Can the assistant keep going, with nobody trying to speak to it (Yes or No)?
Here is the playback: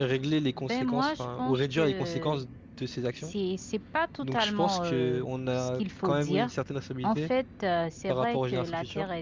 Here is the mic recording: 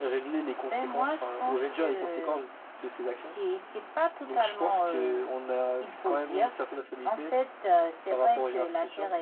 Yes